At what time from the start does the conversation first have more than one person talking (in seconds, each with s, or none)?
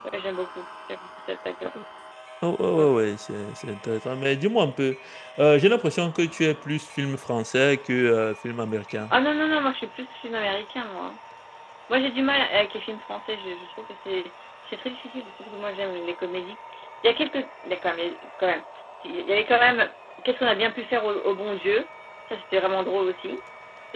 none